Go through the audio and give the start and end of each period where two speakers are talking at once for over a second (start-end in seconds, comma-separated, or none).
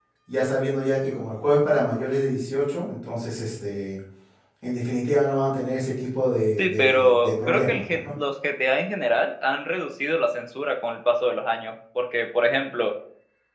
6.6-8.0